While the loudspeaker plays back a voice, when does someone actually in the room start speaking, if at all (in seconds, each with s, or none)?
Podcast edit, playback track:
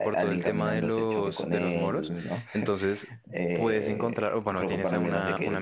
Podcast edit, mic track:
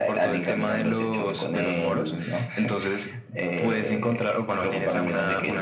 none